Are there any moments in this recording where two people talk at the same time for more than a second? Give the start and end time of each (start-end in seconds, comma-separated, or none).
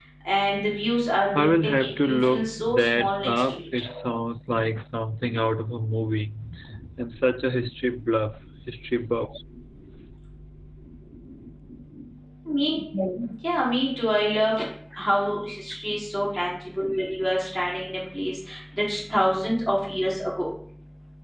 1.4-3.6